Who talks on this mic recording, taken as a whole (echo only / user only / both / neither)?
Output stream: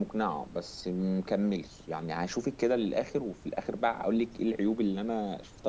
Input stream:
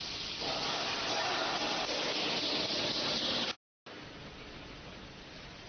neither